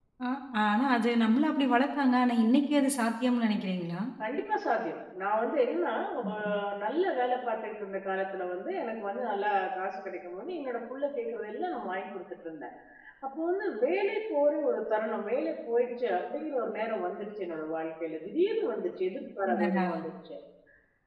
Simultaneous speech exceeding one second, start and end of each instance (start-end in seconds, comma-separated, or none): none